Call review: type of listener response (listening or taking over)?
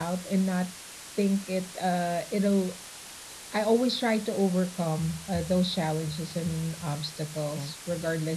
listening